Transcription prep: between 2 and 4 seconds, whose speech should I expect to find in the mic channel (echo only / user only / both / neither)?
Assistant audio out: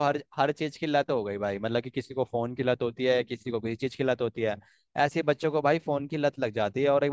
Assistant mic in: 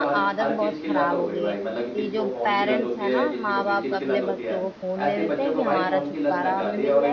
both